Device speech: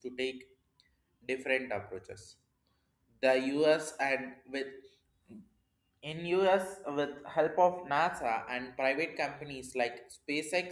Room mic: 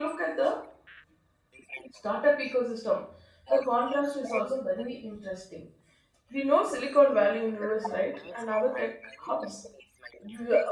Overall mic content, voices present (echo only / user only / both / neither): both